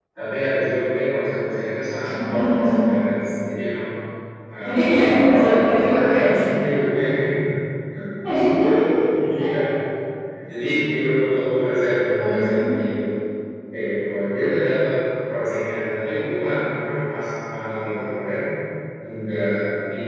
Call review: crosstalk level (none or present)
present